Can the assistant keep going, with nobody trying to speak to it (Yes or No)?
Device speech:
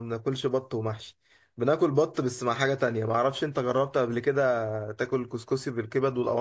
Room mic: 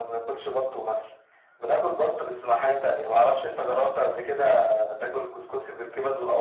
Yes